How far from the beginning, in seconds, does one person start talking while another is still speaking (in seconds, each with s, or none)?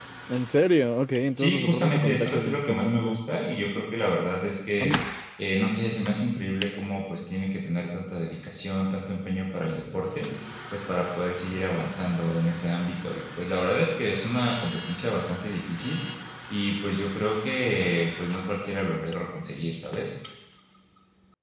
1.4 s